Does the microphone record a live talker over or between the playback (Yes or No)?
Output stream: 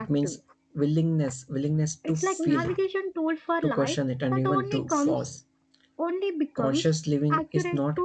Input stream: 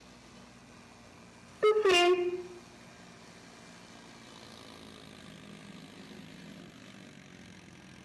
Yes